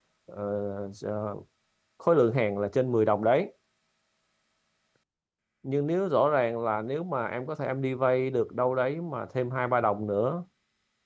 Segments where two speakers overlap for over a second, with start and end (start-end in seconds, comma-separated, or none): none